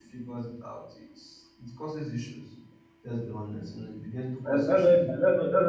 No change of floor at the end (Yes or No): No